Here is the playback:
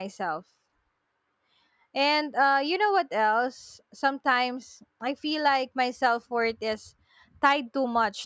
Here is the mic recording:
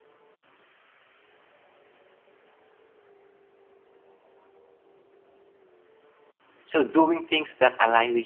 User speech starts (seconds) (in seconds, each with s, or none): 6.6 s